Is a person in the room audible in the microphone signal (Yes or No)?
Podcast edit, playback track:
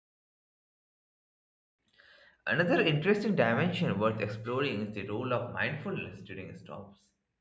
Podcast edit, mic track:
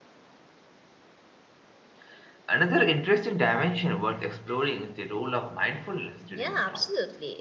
Yes